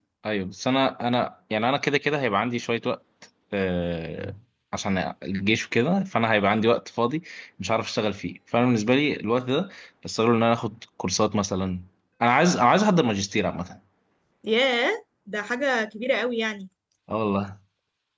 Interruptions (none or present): none